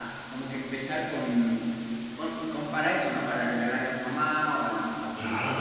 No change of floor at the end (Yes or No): No